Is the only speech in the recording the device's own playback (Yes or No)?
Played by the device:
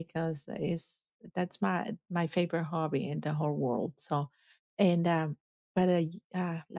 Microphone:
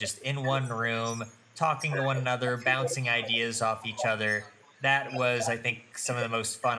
No